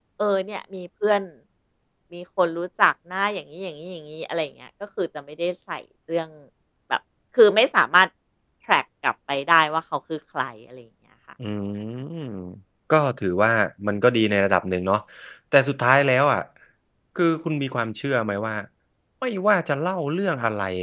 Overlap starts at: none

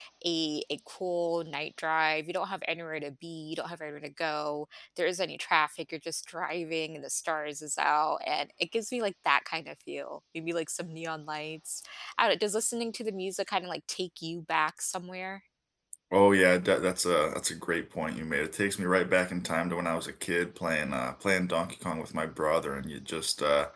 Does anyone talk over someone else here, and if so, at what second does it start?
none

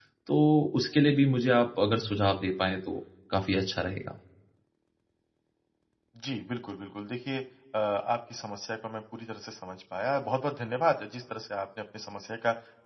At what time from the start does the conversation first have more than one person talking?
none

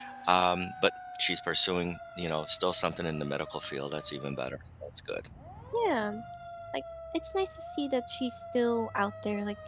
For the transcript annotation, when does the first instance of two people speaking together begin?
none

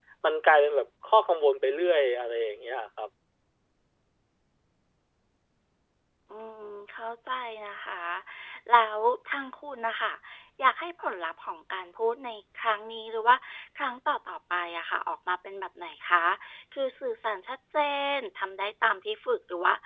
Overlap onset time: none

